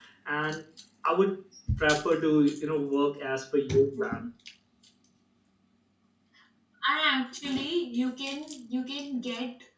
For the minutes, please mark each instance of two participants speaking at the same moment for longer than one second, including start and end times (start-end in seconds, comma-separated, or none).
none